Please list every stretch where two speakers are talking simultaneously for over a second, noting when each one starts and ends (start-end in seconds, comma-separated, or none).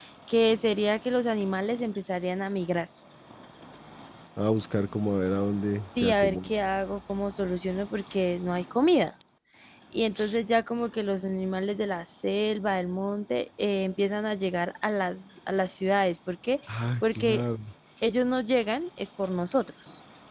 none